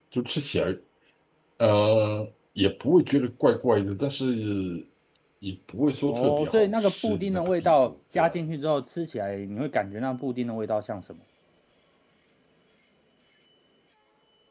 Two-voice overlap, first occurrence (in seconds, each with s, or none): 6.1 s